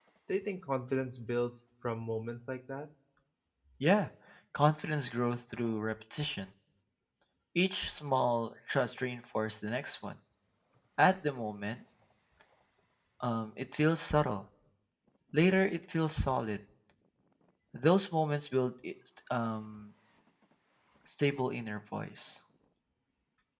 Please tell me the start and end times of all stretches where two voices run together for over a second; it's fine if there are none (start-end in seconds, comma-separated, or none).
none